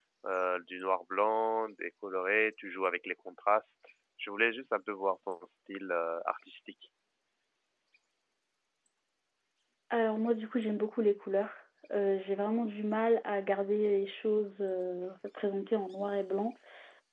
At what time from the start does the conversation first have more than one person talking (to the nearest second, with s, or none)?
none